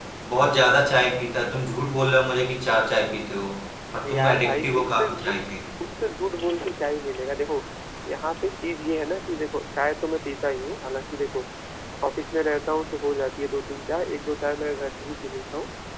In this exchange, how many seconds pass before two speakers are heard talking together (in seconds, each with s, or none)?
4.1 s